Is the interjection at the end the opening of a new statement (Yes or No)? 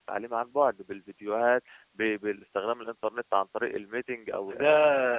Yes